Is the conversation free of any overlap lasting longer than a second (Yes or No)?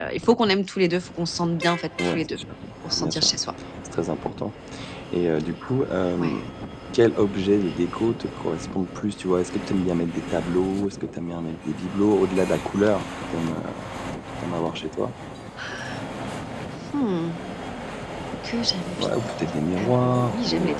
No